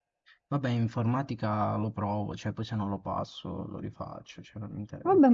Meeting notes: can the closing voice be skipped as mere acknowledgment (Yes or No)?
No